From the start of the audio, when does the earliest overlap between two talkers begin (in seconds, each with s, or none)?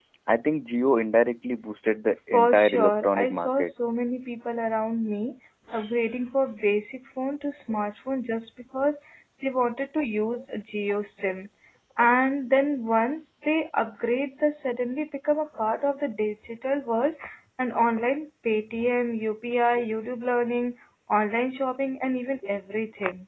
2.3 s